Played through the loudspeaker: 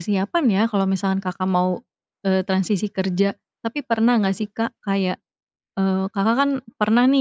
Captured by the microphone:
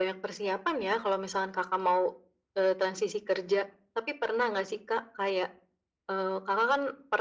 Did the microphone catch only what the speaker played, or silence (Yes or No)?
Yes